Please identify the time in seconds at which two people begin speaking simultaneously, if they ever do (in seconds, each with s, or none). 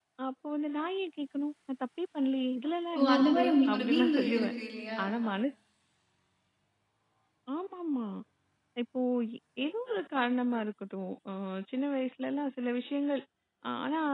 3.0 s